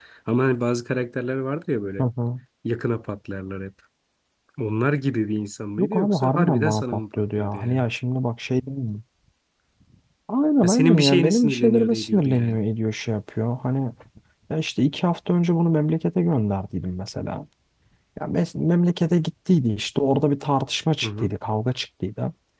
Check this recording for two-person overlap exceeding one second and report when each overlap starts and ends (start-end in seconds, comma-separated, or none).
5.8-7.8, 10.6-12.6